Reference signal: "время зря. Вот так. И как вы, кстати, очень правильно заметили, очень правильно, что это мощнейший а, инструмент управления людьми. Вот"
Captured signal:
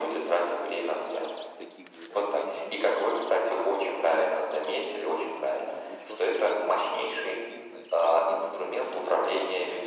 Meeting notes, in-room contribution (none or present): present